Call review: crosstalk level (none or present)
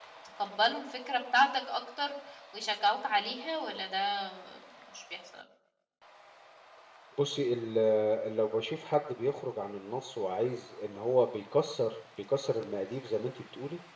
none